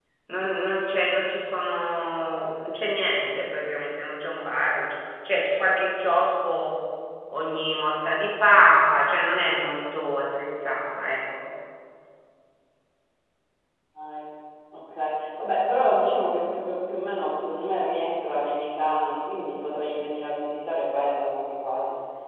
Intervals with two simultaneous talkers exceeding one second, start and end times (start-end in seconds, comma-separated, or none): none